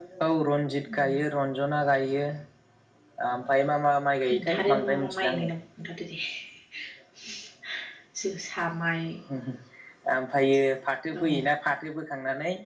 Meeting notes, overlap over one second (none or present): present